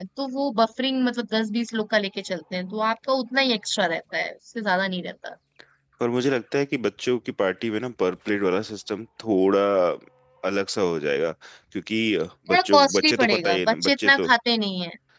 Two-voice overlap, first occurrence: 12.5 s

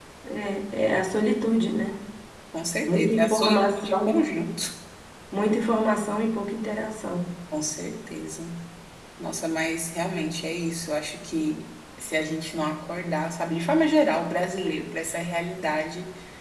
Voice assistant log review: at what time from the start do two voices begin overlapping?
2.9 s

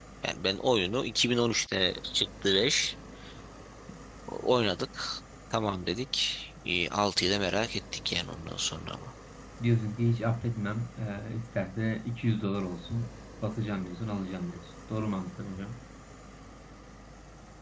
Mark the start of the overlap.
none

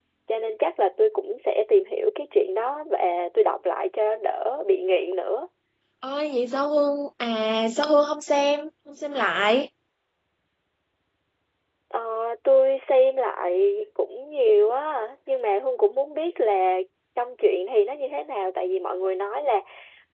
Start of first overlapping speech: none

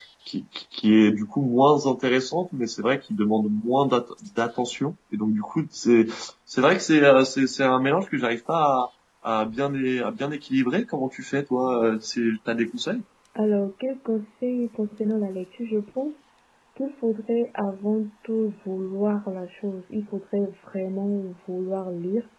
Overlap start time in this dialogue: none

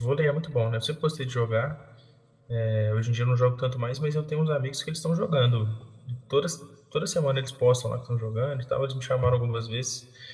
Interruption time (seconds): none

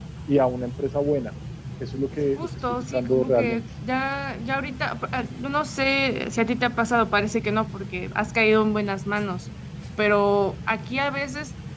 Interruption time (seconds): 2.4 s

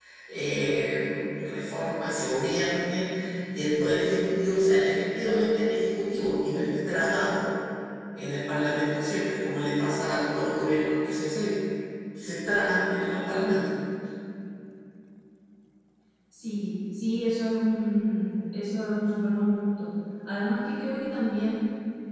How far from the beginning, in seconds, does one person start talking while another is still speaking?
none

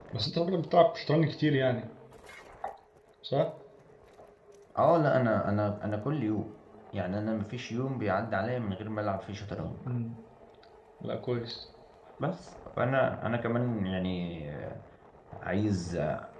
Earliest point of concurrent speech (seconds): none

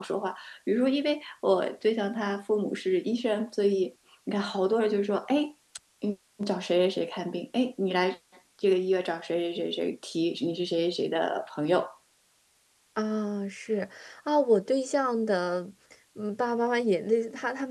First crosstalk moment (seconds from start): none

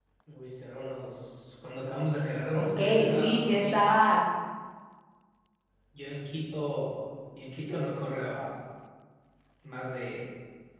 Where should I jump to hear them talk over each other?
2.5 s

